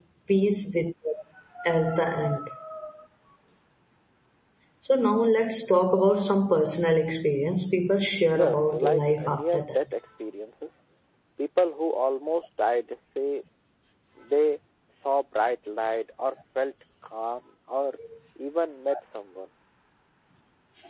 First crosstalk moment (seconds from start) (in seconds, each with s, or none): 8.3 s